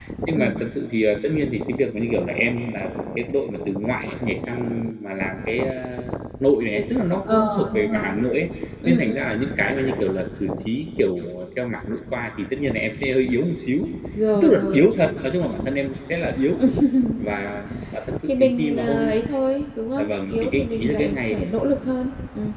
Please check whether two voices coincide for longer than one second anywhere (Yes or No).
Yes